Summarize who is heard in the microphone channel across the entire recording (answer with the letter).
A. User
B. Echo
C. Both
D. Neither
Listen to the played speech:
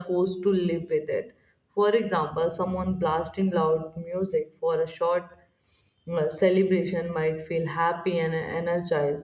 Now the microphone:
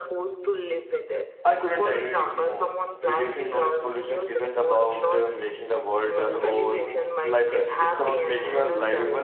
C